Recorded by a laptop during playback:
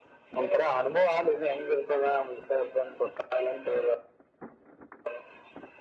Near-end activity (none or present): none